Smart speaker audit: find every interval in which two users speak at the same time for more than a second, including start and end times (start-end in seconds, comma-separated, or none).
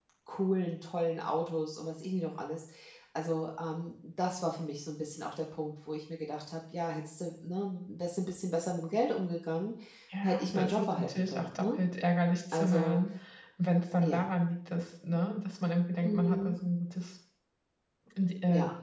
10.2-11.8